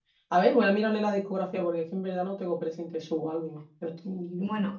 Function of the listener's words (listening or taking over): taking over